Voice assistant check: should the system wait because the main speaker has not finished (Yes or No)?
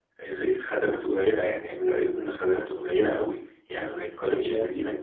Yes